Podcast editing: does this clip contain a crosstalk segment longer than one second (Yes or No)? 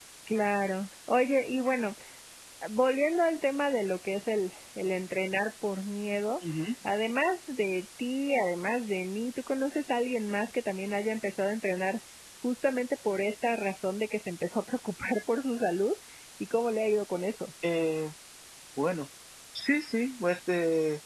No